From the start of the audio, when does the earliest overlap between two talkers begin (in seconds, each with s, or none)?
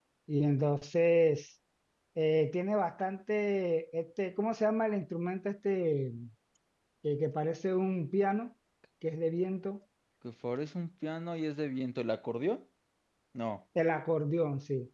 none